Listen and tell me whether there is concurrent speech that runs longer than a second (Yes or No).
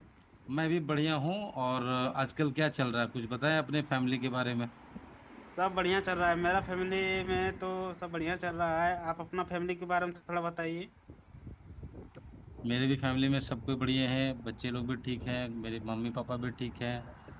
No